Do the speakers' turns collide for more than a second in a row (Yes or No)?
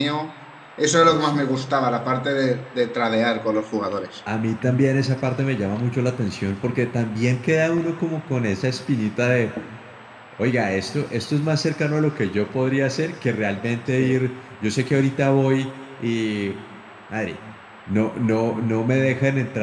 No